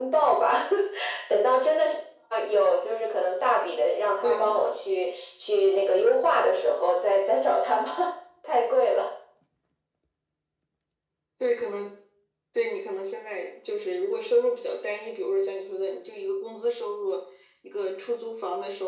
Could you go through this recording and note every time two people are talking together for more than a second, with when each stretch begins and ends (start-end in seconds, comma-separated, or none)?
none